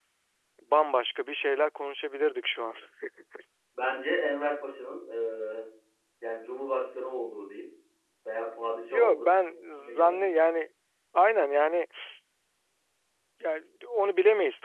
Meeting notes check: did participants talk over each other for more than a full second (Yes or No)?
Yes